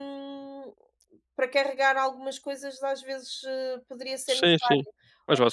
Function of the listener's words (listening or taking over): taking over